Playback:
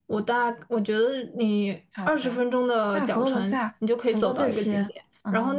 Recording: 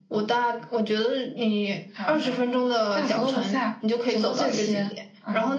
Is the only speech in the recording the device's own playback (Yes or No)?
No